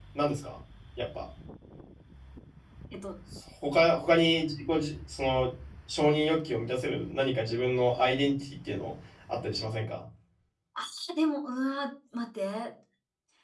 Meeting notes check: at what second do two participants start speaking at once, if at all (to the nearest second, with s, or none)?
none